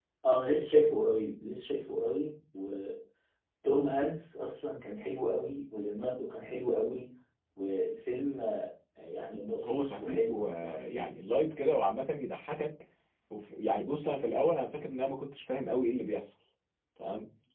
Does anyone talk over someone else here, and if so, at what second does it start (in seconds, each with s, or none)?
9.6 s